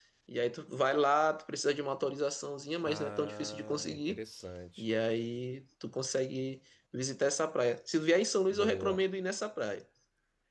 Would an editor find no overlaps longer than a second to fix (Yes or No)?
No